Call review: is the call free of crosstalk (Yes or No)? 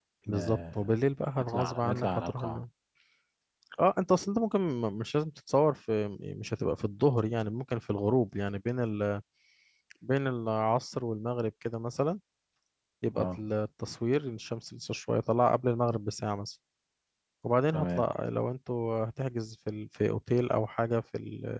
No